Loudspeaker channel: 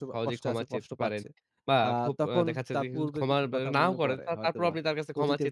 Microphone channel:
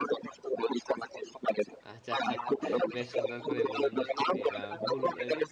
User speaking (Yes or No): Yes